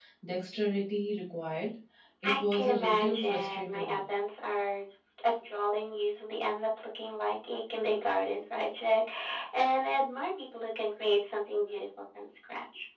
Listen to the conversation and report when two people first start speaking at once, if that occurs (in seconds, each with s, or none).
2.2 s